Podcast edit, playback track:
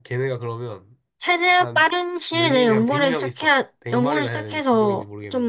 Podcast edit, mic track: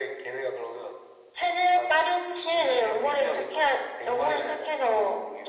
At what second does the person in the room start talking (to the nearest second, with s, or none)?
none